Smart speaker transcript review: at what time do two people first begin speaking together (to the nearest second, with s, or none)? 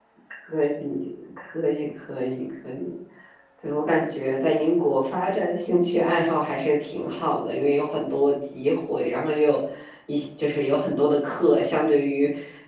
none